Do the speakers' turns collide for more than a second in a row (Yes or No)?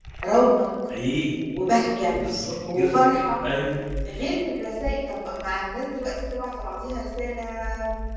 No